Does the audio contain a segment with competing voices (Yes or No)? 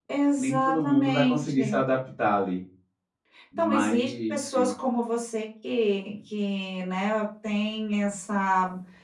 Yes